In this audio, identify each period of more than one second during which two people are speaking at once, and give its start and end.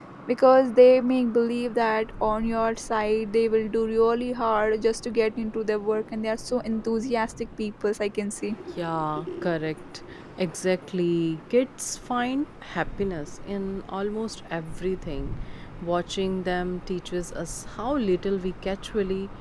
none

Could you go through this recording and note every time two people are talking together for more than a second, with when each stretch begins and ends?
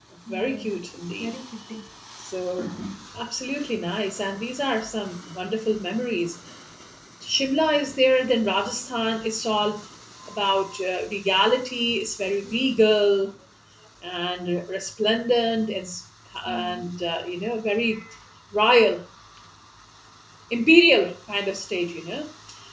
none

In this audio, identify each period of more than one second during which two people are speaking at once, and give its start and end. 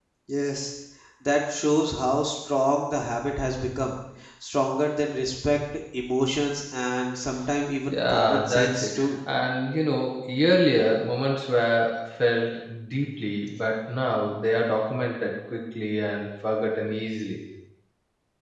7.9-9.1

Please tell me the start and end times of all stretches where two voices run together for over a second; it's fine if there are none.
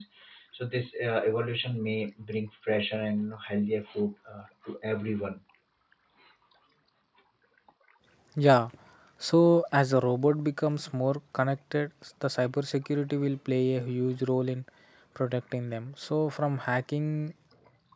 none

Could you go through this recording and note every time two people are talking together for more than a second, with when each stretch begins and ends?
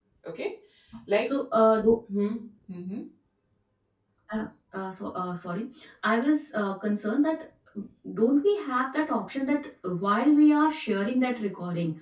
none

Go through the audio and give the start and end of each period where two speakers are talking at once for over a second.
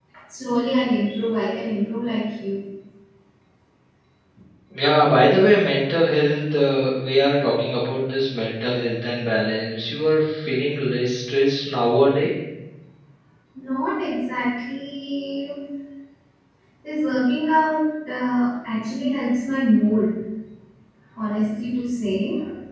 none

